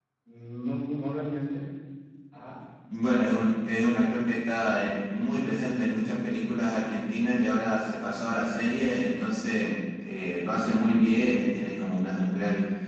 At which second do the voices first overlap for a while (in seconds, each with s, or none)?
none